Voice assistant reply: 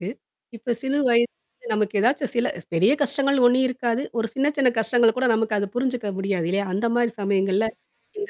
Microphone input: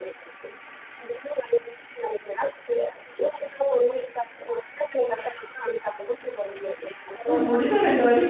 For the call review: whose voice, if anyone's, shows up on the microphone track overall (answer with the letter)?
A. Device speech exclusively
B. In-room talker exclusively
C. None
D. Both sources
D